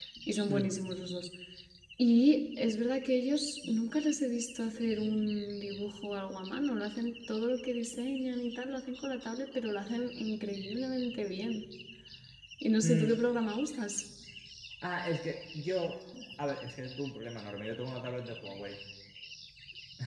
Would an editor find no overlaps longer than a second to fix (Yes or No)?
Yes